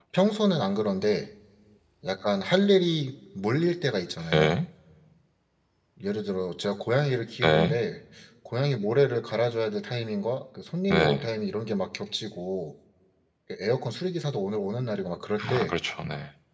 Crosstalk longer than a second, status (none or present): none